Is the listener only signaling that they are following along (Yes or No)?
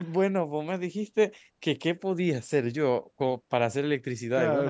No